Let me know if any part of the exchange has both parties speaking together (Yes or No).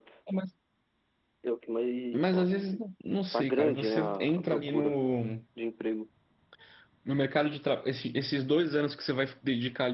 Yes